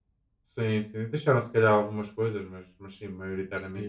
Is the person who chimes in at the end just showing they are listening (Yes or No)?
No